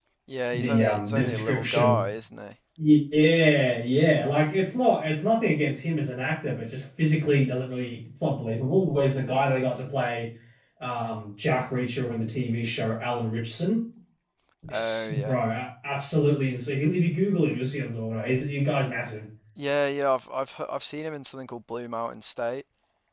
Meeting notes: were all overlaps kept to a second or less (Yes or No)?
No